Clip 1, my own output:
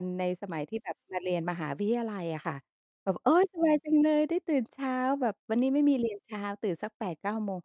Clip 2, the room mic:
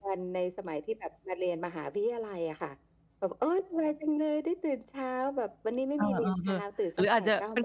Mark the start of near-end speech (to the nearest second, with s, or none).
6 s